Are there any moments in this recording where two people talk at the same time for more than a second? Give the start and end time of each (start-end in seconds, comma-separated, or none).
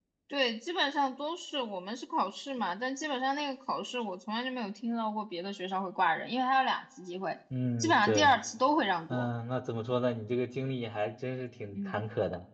none